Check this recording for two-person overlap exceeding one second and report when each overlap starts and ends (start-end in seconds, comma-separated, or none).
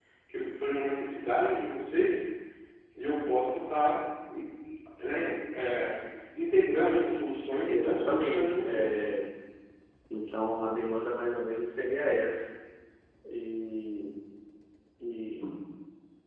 7.7-9.0